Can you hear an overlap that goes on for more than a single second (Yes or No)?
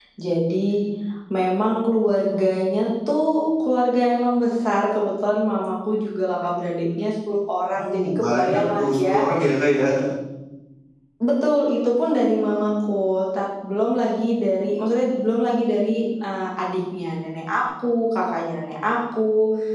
Yes